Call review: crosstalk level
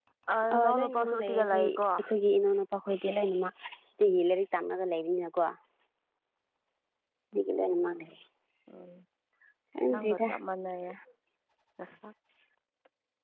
present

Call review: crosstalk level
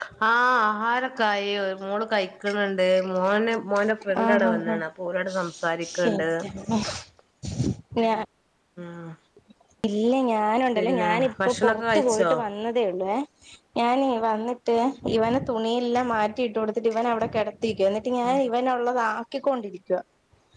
present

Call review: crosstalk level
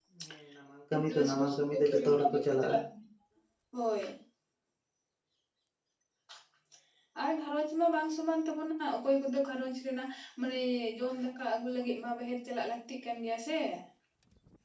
present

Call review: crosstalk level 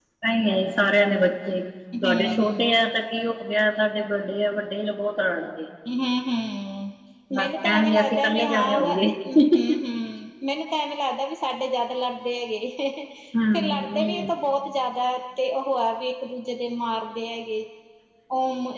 present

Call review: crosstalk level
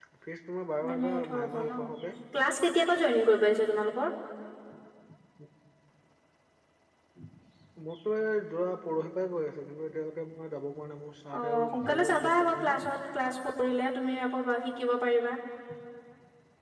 present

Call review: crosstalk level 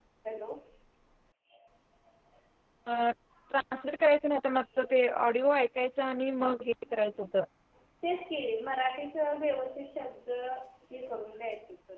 none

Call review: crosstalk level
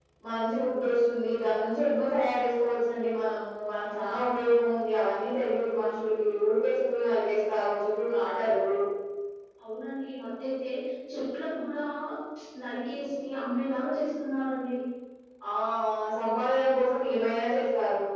none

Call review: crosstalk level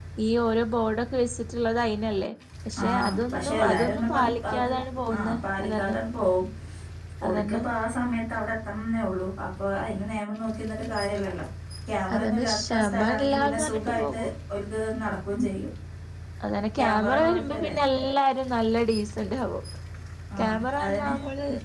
present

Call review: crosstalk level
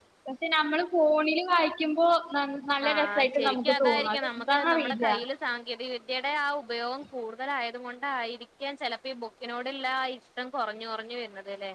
present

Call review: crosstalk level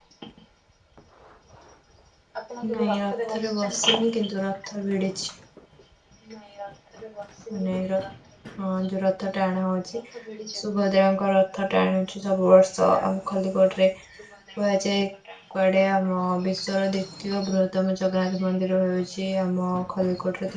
present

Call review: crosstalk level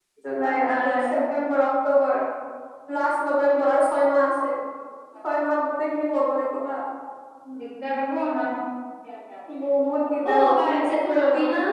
present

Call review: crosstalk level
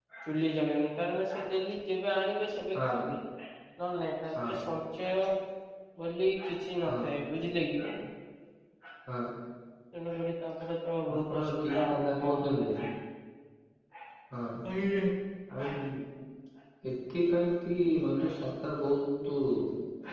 present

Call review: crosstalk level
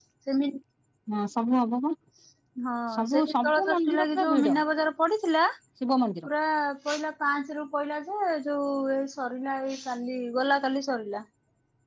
present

